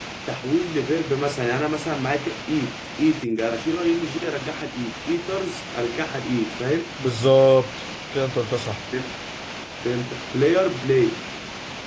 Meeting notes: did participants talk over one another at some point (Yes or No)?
No